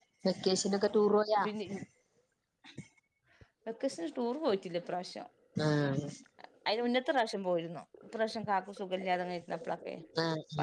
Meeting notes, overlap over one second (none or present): none